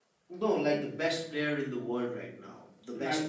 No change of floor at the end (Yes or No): No